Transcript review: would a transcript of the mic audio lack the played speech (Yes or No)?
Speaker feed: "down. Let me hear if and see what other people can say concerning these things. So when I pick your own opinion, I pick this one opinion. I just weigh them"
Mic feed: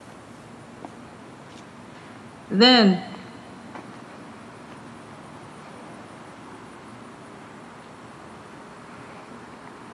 Yes